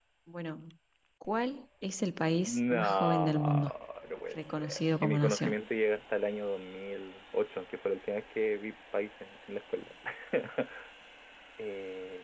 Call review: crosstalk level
present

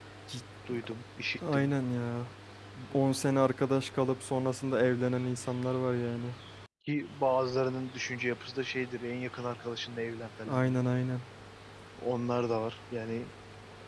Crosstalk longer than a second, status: none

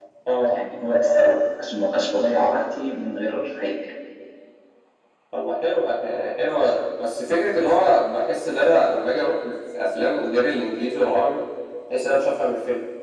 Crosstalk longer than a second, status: none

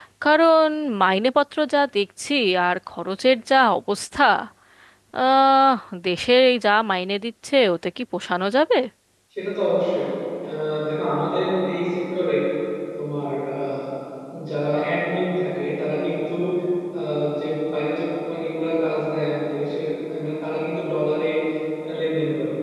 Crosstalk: none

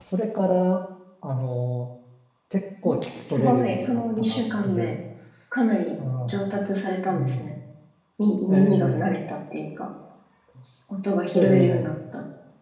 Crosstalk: present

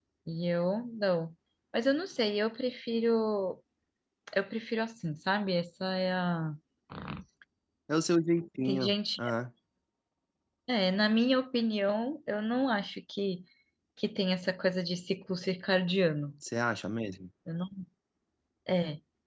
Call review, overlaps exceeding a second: none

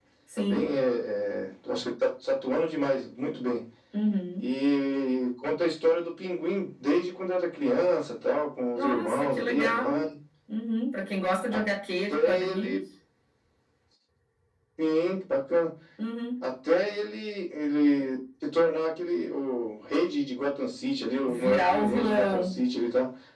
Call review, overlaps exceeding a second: present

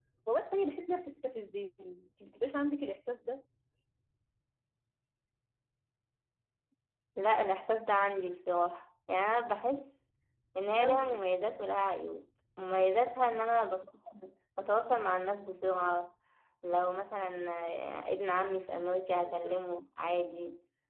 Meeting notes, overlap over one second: none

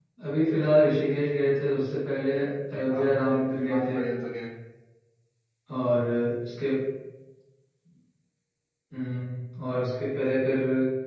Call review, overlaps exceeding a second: present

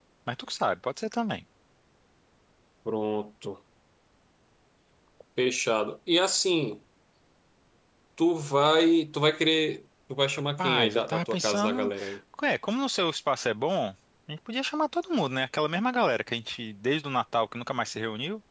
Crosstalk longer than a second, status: present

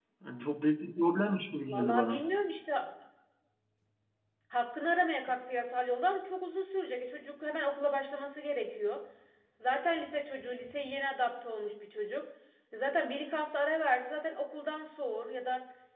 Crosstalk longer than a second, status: none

